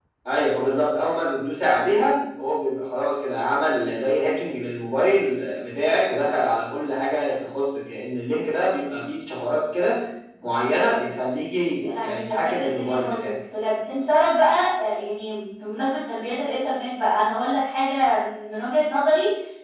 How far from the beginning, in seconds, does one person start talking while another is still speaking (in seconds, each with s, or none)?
11.8 s